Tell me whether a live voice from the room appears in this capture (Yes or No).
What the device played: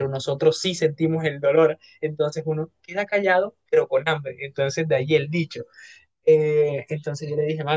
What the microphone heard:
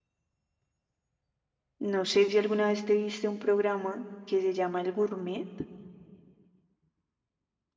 Yes